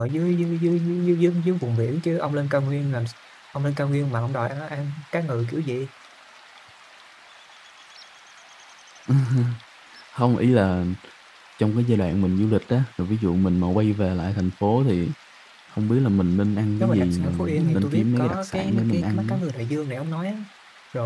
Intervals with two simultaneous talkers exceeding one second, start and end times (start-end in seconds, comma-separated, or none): 16.8-19.4